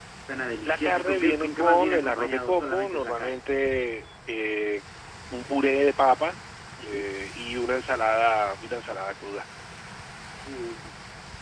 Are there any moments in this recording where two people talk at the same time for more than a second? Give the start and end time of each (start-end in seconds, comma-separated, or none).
0.7-3.4